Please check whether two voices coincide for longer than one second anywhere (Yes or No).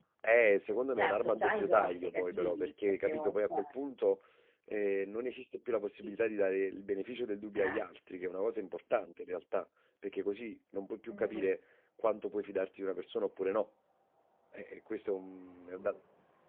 Yes